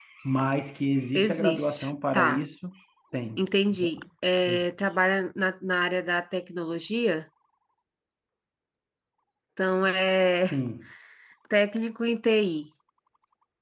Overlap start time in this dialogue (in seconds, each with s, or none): 1.1 s